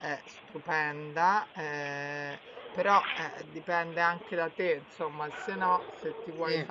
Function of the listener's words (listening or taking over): listening